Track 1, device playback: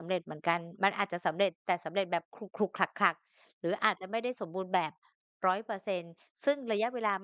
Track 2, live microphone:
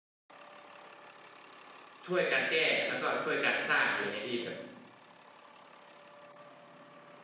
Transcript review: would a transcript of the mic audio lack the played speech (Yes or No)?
Yes